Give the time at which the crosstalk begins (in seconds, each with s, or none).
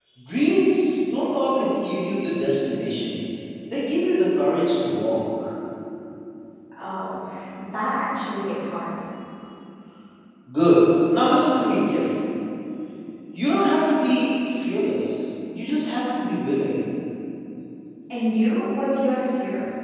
none